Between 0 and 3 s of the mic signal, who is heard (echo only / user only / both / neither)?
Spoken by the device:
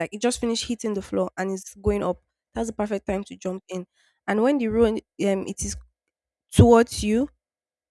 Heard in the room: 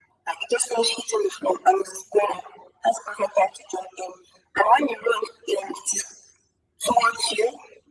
echo only